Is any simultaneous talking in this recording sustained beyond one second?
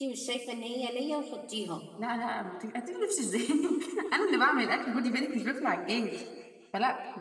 No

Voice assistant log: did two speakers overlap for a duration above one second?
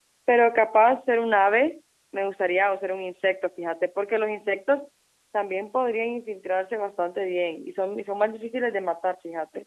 No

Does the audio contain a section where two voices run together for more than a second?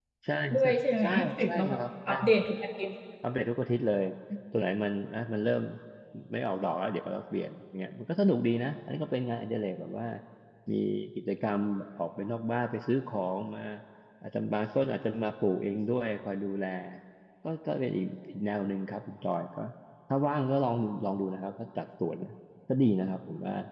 Yes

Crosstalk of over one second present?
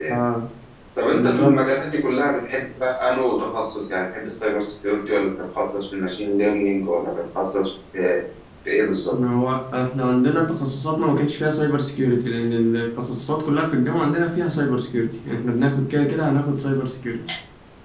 No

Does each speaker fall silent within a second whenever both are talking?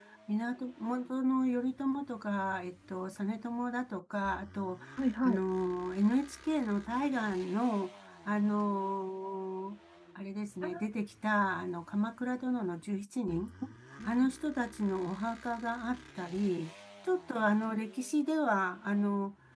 Yes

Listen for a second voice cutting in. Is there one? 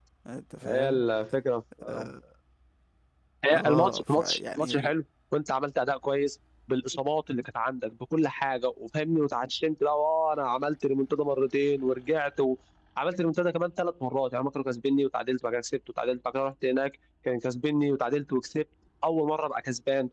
Yes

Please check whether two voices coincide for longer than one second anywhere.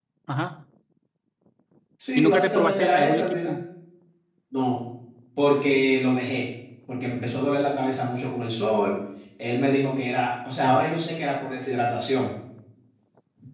Yes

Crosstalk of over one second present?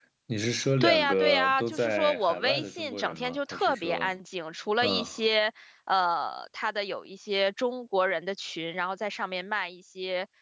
Yes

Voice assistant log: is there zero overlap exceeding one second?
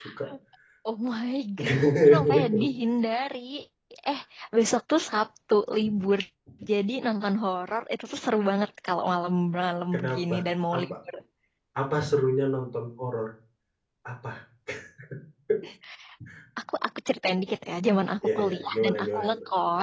No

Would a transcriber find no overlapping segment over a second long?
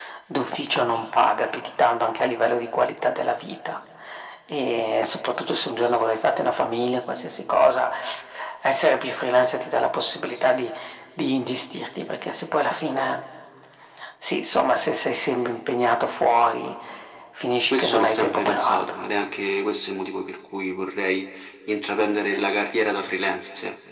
No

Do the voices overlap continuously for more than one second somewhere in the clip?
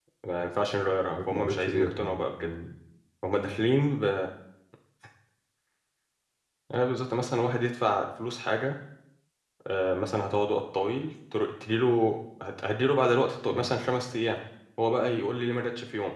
Yes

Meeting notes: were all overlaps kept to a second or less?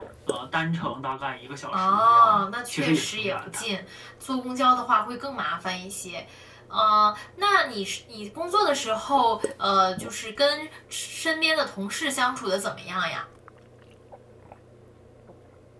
No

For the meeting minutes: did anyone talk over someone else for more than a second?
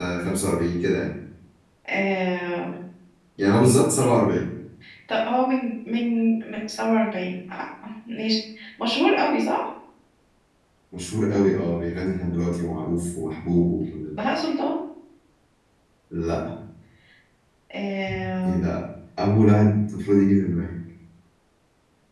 No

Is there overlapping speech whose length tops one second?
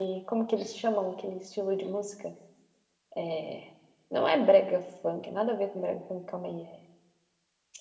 No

